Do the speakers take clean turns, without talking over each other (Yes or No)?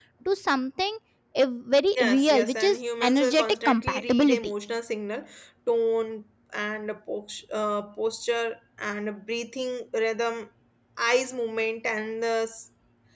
No